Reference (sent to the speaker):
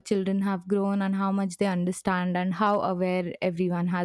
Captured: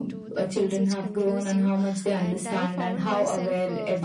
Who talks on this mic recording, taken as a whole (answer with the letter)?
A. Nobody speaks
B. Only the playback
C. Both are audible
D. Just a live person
C